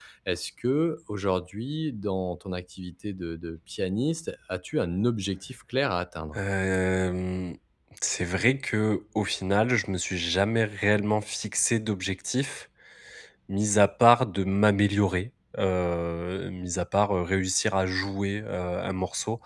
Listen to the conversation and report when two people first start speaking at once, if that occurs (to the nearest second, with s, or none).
none